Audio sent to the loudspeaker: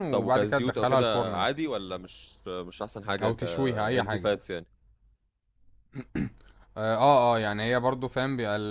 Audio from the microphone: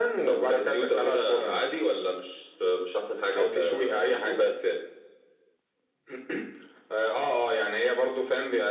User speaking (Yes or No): No